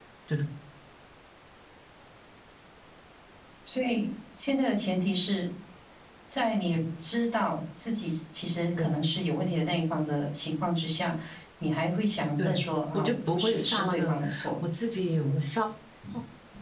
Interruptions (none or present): present